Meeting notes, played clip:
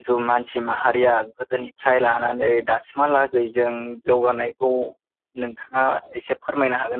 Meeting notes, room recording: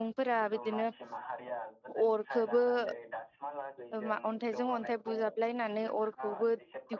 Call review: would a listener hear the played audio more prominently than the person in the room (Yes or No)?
No